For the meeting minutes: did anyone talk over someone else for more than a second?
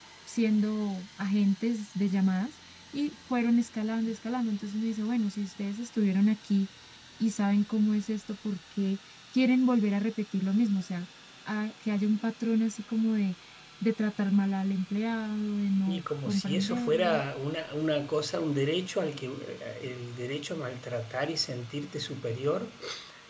Yes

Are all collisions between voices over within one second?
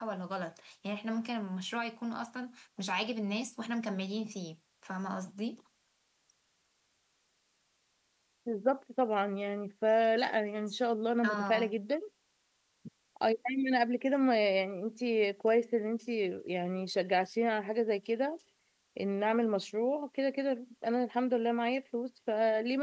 Yes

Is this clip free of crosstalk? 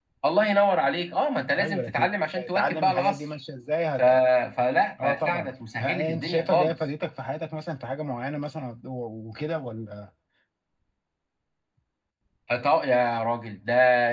No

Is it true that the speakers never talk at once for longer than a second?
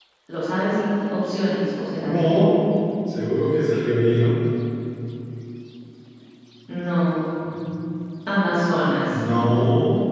Yes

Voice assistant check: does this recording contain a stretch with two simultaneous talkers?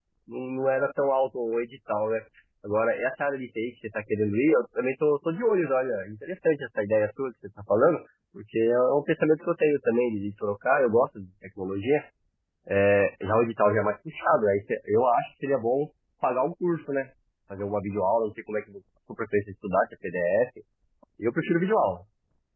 No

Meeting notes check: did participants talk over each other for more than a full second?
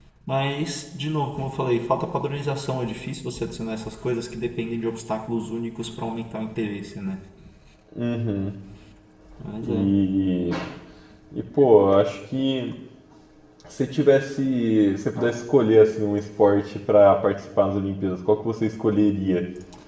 No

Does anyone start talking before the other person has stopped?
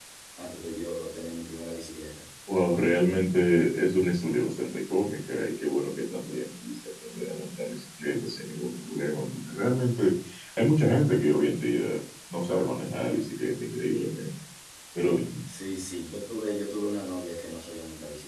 No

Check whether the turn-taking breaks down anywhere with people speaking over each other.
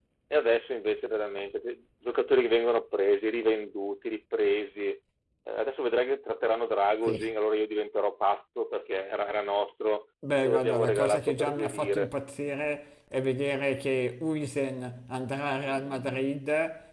Yes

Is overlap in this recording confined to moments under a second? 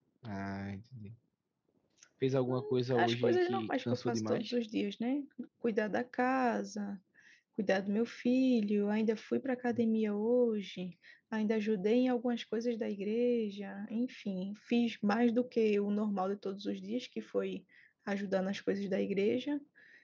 No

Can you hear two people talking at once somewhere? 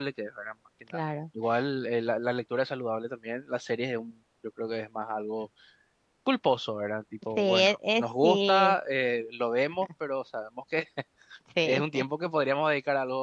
Yes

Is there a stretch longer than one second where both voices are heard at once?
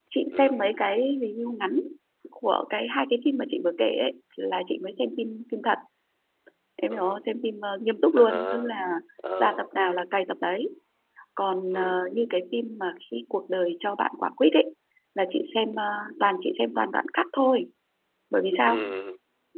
No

